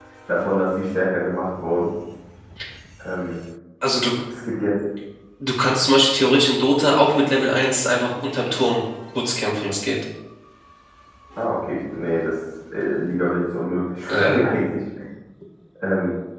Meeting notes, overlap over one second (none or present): none